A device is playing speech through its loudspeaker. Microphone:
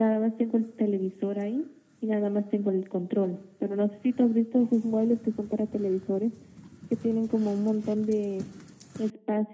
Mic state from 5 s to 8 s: echo only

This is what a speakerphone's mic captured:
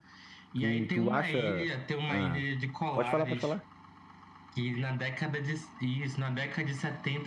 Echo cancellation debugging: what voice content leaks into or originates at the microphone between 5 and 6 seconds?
echo only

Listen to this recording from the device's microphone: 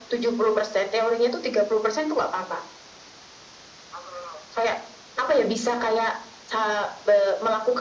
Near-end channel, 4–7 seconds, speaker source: echo only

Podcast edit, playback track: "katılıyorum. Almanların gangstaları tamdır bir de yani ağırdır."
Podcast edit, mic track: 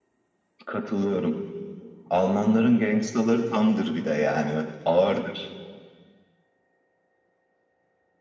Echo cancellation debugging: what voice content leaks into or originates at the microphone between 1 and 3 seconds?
echo only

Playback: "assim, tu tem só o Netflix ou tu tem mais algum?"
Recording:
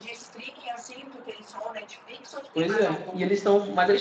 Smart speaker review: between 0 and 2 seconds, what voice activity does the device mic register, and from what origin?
echo only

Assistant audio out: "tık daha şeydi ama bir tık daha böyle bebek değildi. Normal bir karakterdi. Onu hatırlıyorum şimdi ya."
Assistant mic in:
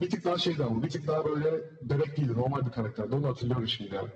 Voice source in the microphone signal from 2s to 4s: echo only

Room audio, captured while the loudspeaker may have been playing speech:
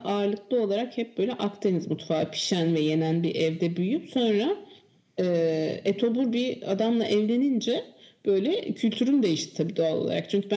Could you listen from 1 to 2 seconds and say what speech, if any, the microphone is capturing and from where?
echo only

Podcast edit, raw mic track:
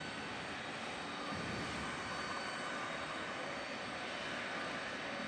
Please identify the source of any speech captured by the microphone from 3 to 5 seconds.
neither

